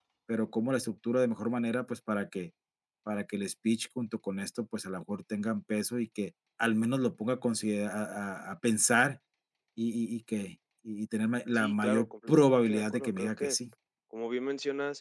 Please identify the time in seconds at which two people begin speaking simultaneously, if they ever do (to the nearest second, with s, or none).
12 s